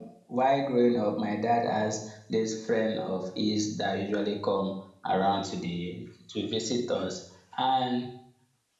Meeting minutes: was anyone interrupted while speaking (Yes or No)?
No